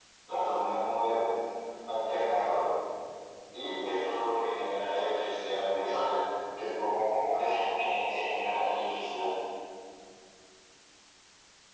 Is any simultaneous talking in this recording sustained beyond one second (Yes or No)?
No